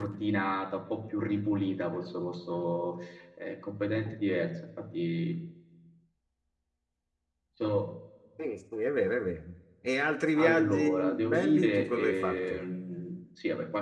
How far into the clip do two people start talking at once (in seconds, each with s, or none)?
10.4 s